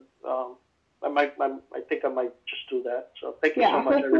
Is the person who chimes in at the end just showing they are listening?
No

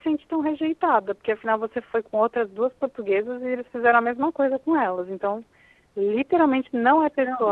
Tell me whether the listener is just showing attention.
No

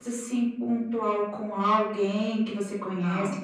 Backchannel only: Yes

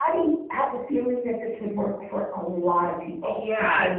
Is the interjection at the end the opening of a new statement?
Yes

